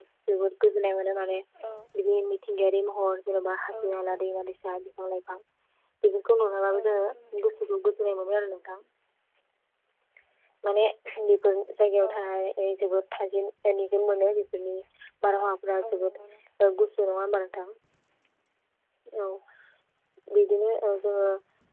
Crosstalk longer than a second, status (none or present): none